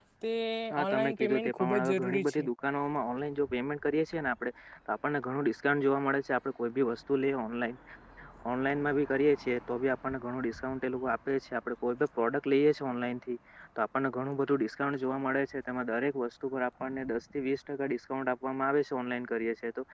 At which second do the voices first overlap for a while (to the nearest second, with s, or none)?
1 s